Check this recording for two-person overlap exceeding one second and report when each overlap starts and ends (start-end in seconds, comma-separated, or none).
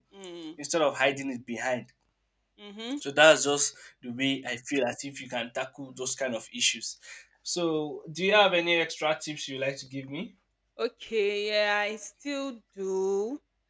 none